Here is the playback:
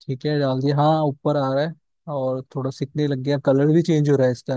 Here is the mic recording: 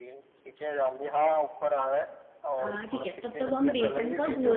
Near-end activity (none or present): present